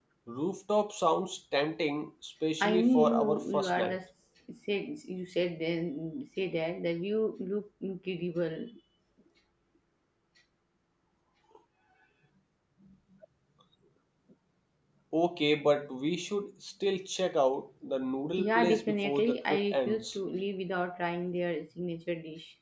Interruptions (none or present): present